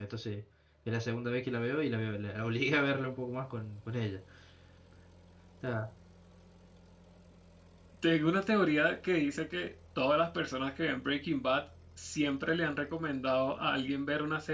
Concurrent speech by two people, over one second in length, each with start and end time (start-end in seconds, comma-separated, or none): none